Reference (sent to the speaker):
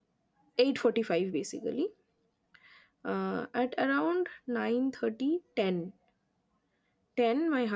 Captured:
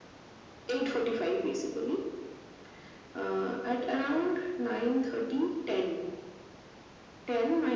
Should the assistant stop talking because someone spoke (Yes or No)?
No